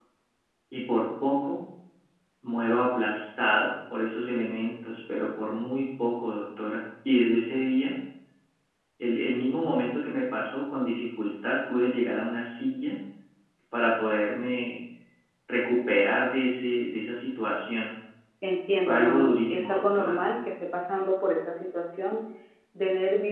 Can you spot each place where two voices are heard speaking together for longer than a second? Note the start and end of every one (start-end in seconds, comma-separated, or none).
18.9-20.2